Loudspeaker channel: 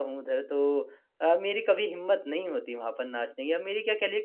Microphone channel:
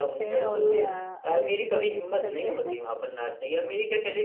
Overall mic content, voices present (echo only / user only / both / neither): both